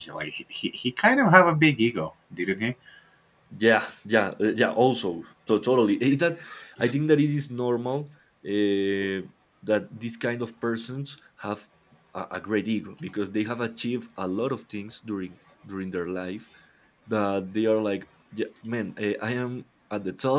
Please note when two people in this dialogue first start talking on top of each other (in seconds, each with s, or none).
none